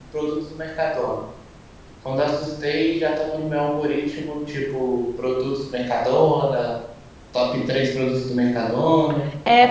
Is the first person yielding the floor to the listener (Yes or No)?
Yes